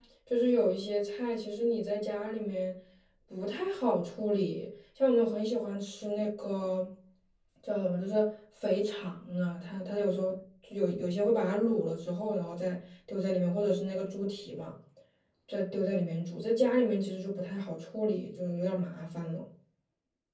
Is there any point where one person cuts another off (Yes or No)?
No